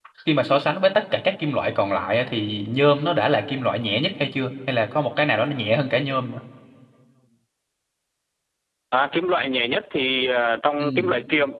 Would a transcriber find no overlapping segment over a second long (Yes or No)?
Yes